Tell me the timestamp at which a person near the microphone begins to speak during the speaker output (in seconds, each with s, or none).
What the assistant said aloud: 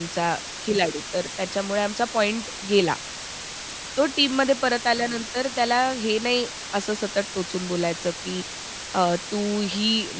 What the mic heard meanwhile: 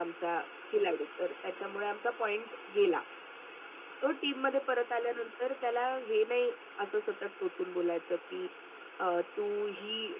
none